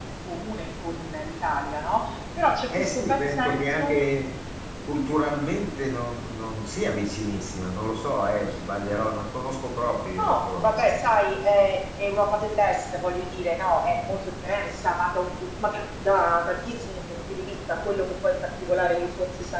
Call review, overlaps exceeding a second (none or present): present